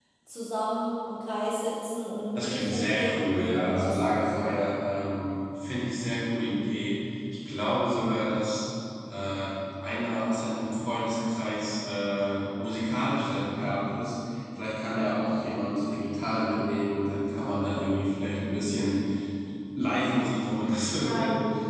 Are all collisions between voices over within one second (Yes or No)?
No